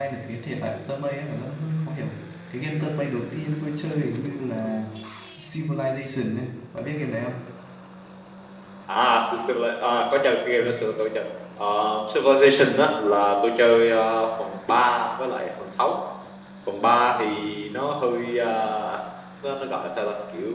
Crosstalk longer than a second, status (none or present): none